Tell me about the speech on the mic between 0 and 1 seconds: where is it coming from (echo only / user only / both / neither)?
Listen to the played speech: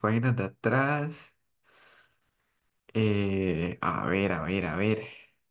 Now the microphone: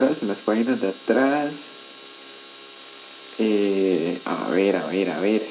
echo only